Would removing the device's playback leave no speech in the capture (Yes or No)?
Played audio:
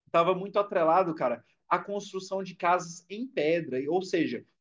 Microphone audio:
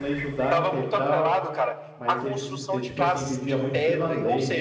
No